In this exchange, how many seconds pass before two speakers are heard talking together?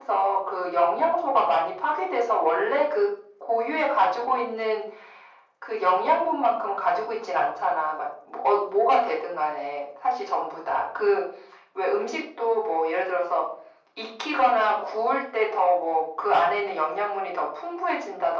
none

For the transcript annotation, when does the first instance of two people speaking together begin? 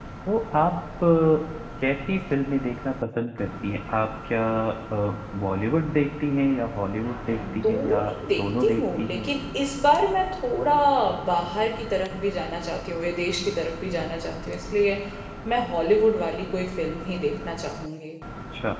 7.4 s

